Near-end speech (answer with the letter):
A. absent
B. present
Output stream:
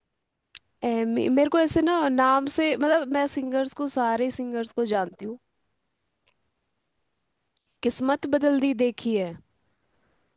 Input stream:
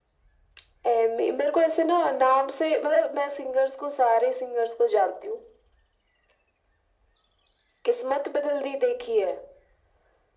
A